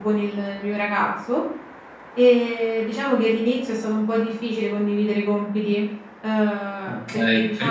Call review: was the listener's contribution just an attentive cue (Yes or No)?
No